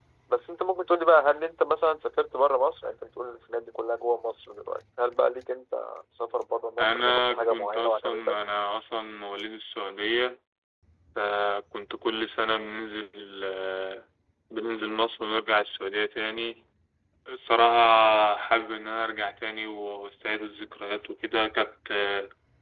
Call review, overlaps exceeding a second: present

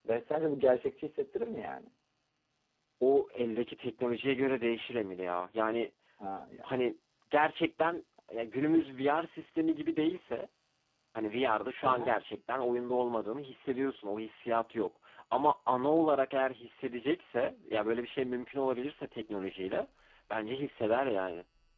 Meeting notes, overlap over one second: none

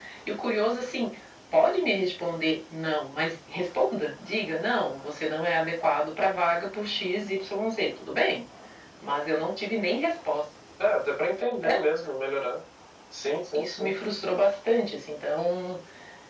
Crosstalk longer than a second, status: none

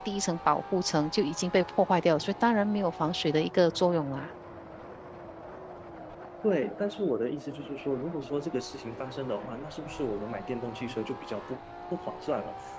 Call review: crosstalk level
none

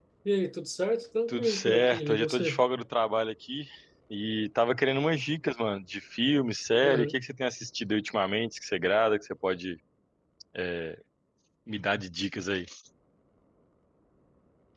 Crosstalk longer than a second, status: present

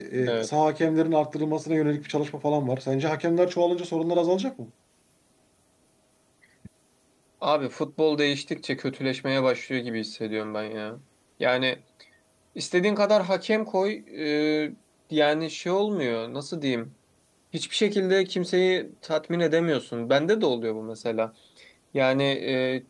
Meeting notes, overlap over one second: none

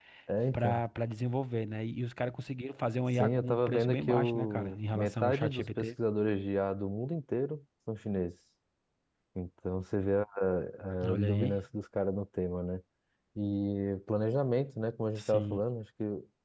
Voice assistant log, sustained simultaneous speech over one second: present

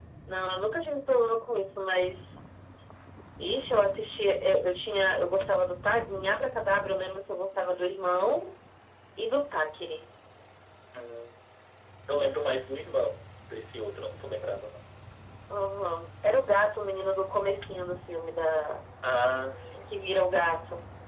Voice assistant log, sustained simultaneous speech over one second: none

